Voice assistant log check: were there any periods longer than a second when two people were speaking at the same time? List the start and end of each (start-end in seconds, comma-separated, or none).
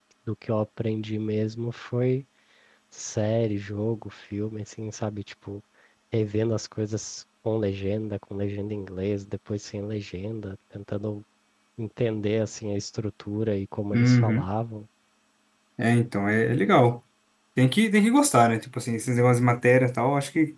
none